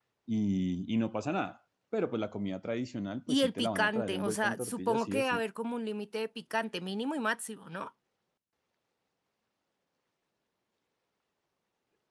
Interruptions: present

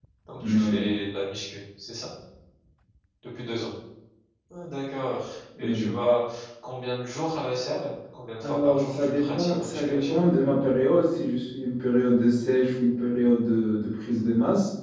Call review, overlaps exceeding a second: present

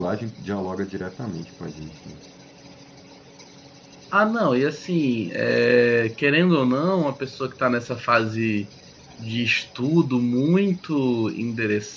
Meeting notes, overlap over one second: none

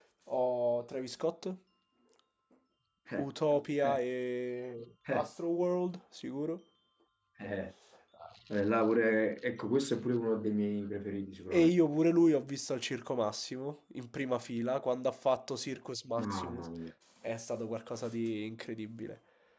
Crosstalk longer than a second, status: none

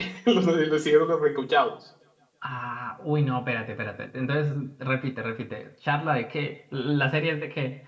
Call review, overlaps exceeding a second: none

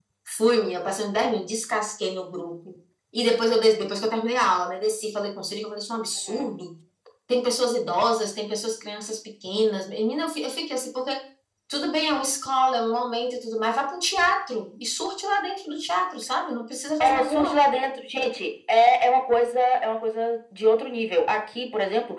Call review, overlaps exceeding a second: none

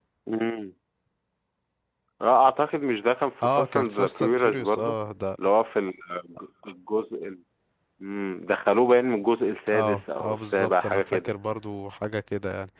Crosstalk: present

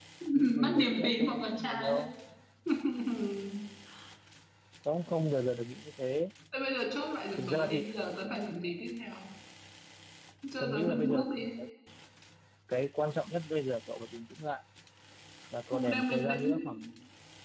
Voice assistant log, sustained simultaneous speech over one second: present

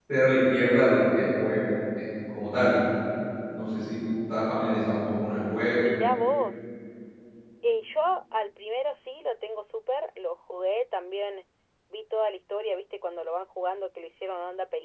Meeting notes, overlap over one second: none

